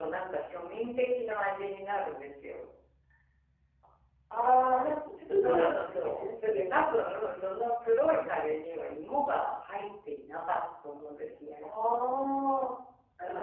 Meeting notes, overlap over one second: present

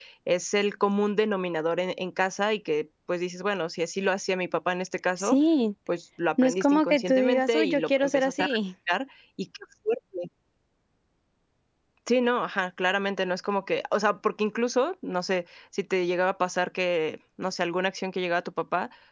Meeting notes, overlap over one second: present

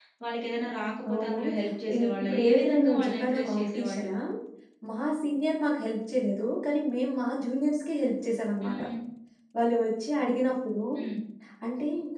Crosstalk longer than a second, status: present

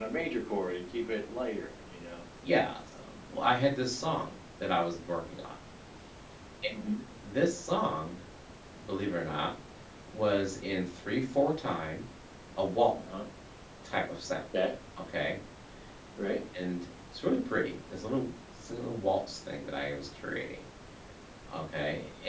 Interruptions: none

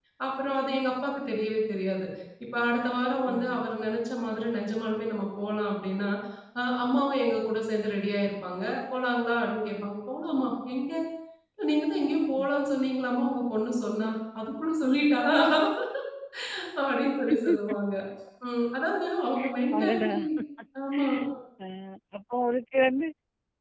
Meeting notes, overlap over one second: none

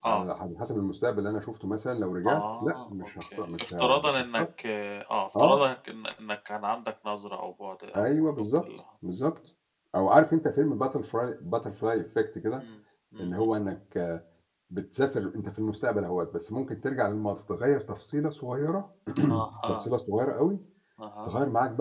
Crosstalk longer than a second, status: present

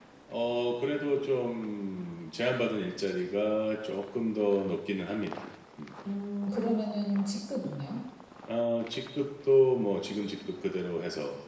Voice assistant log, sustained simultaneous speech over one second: none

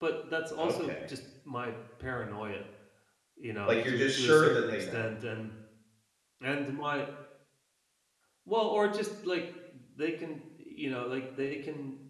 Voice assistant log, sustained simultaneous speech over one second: present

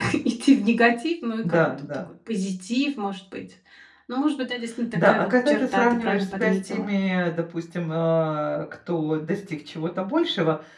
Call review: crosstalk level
present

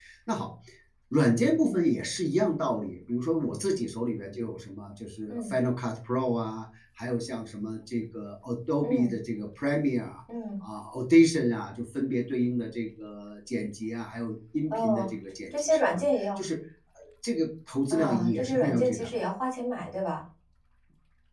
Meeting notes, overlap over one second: present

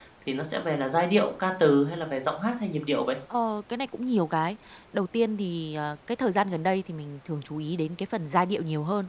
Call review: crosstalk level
none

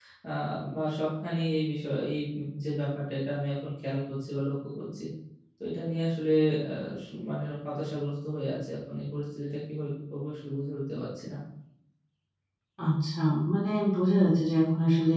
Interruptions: none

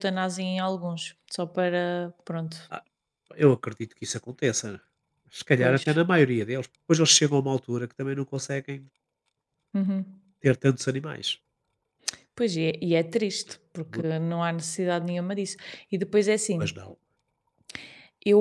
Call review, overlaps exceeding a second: none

